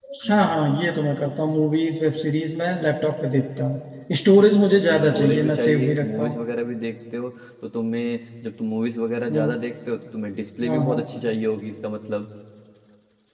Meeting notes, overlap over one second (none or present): present